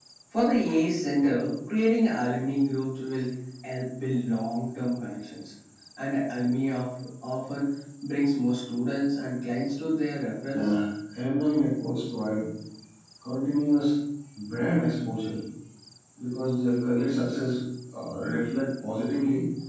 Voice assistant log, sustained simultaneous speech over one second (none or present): none